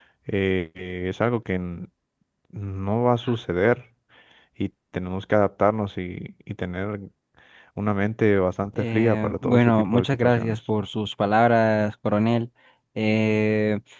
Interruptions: present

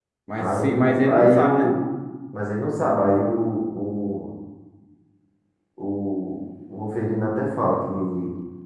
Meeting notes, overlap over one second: present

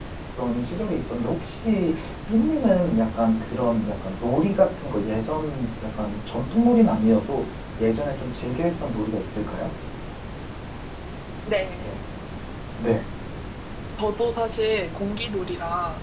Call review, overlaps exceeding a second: none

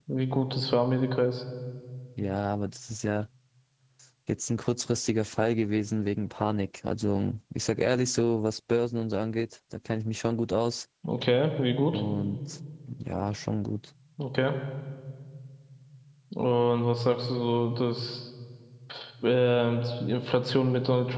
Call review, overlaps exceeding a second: none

